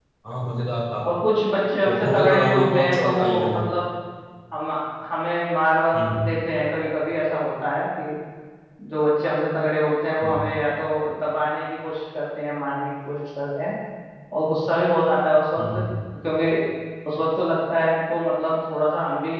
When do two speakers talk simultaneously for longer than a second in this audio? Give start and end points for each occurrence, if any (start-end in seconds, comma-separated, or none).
1.9-3.6